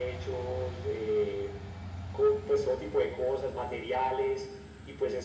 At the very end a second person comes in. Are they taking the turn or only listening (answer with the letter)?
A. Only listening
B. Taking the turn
A